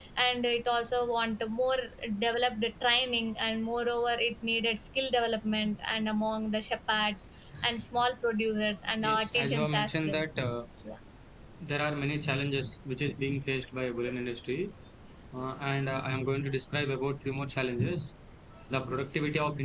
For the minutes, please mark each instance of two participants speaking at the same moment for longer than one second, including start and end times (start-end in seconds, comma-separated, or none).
9.0-10.2